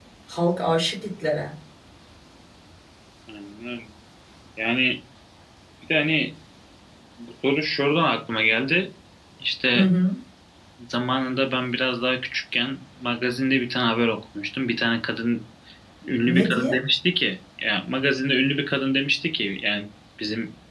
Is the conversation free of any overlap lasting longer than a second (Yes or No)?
Yes